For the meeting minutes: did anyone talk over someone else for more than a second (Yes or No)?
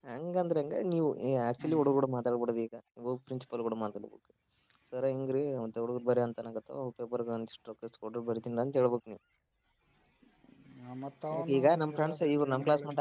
Yes